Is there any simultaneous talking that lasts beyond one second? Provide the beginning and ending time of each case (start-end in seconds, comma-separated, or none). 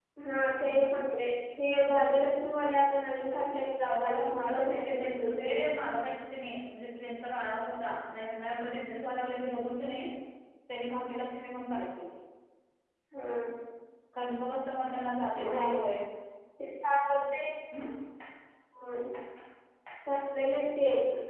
3.8-5.6